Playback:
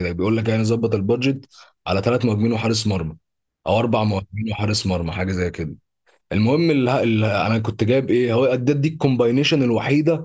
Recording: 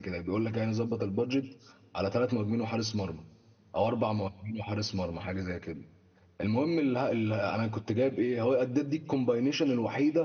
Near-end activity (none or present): none